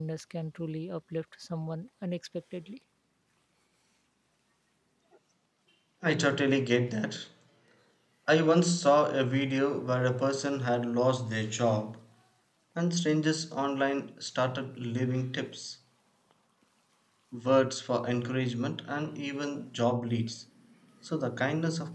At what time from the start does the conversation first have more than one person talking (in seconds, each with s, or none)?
none